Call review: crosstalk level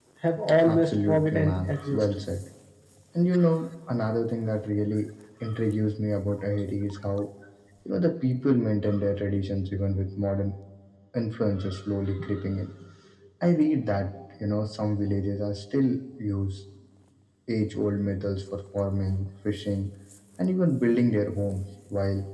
present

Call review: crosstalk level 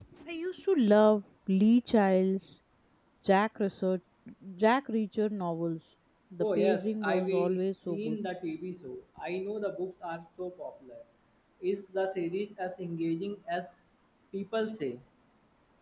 present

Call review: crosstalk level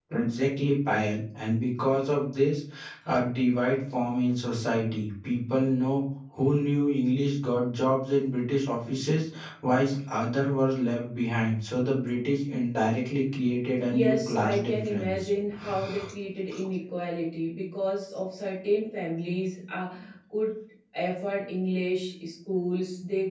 present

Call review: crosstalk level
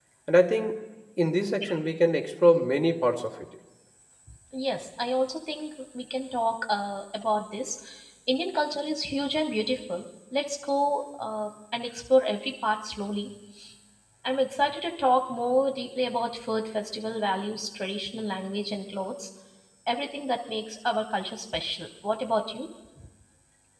none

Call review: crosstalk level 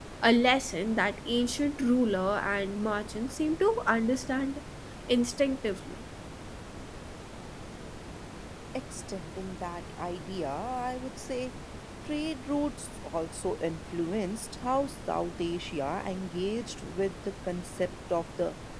none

